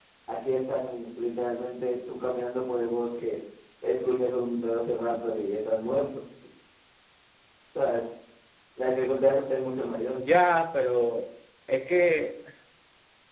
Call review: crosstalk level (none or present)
none